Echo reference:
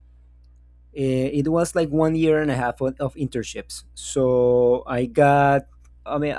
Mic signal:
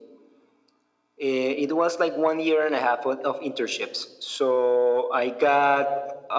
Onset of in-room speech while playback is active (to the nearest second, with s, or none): none